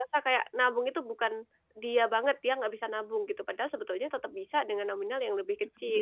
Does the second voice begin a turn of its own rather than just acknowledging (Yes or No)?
Yes